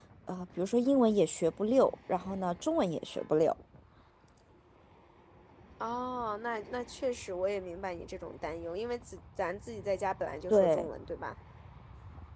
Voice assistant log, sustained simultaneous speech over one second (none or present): none